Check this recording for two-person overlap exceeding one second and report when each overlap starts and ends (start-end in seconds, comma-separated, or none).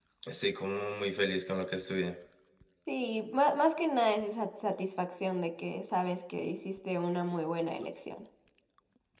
none